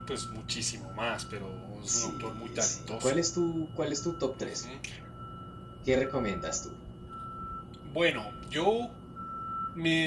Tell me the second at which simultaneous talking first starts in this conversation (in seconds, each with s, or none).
1.9 s